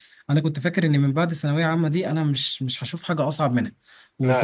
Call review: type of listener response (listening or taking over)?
listening